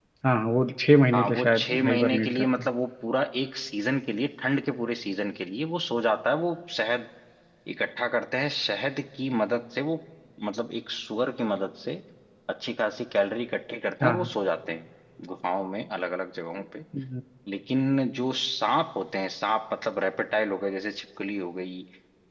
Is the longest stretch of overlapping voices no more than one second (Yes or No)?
No